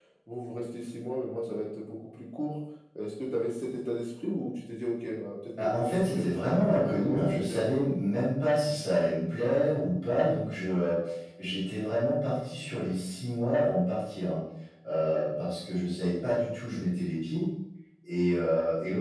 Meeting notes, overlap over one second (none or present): present